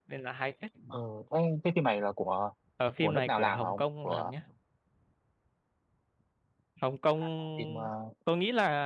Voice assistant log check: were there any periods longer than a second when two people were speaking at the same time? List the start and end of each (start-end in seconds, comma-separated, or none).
3.0-4.3